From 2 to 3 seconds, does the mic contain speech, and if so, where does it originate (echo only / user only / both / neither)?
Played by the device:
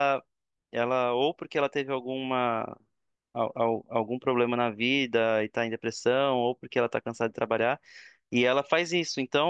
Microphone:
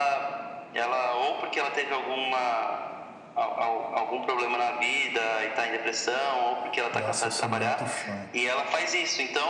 echo only